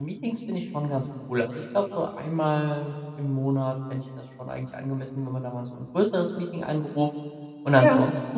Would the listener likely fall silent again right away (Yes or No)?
Yes